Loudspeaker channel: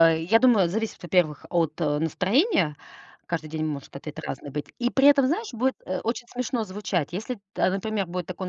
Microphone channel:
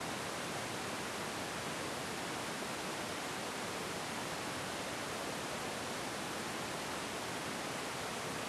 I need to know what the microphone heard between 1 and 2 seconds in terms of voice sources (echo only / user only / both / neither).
neither